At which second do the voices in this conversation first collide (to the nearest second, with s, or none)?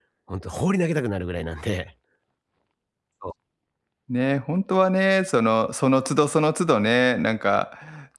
none